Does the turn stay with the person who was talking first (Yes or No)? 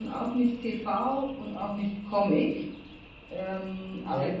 Yes